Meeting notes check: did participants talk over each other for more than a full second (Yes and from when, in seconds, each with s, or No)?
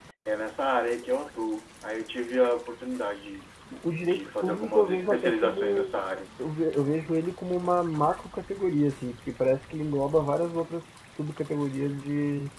Yes, from 4.1 s